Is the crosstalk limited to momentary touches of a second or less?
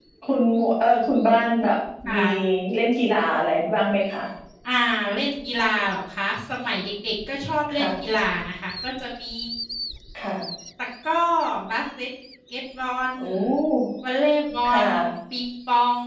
Yes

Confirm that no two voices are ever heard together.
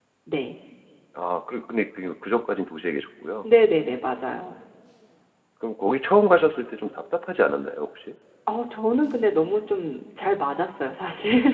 Yes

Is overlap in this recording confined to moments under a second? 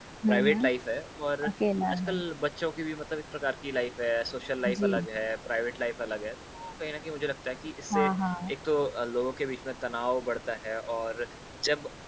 Yes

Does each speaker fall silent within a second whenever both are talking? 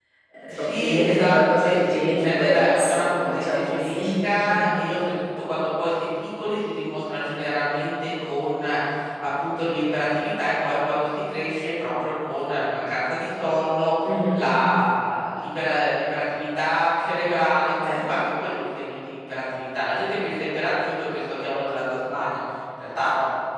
No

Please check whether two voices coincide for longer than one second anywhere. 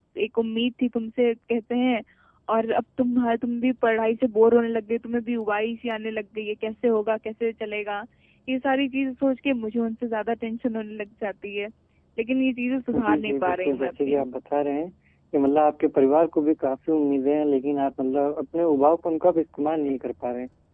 Yes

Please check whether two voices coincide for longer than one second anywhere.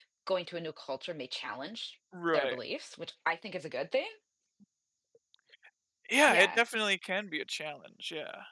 No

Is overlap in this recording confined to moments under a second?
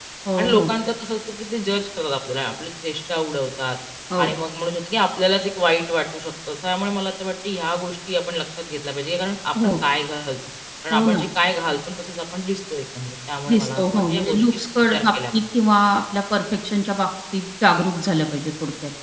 No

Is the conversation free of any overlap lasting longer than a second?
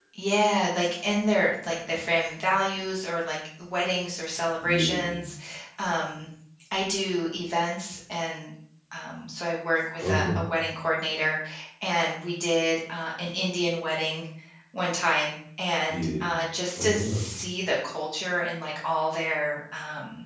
Yes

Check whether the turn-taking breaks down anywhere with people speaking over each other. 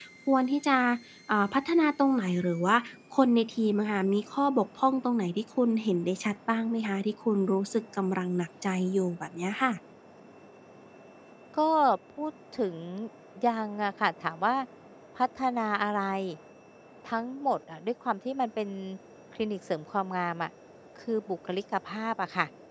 No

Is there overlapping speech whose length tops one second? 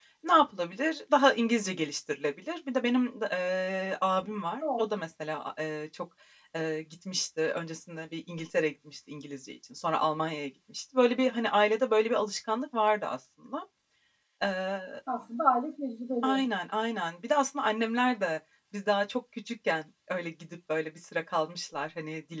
No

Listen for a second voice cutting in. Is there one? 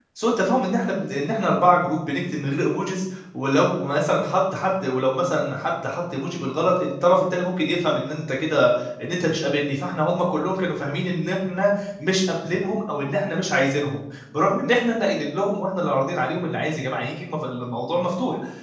No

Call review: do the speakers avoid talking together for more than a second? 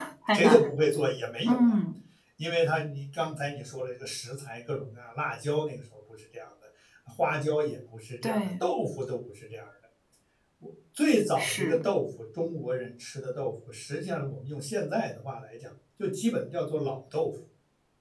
Yes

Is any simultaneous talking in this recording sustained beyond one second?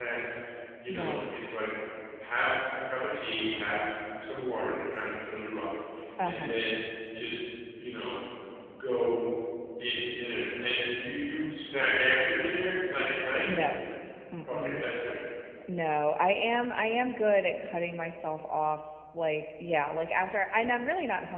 No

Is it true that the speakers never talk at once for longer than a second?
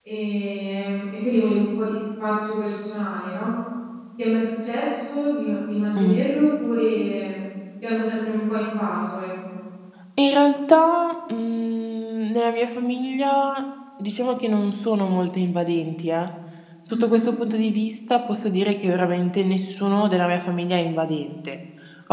Yes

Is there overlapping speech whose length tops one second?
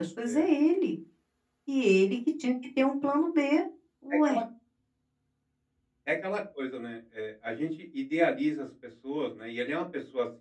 No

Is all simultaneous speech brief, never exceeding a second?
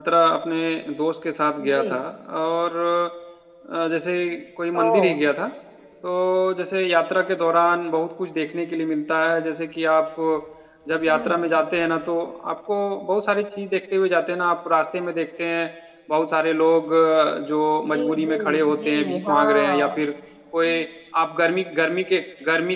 No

